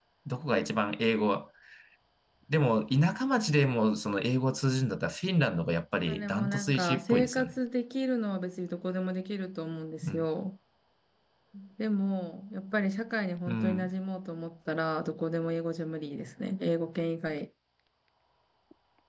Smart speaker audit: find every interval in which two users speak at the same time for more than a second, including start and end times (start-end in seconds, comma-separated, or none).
6.1-7.5